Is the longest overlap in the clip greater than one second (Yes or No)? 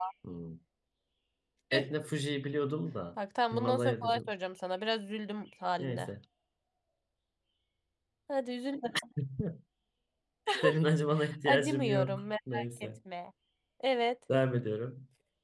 Yes